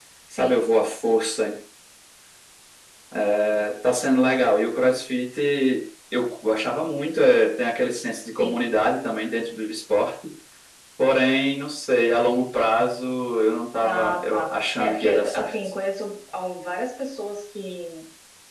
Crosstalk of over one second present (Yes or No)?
Yes